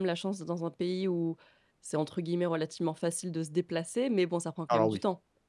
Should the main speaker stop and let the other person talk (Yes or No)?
No